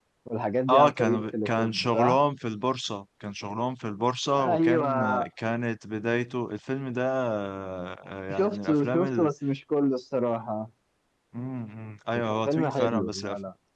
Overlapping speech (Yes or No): Yes